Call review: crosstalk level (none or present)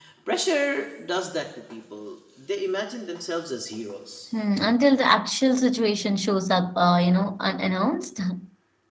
none